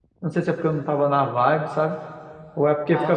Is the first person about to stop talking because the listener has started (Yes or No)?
No